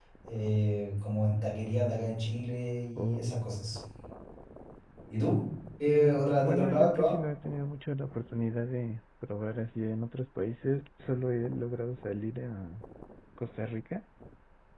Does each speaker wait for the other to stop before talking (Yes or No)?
No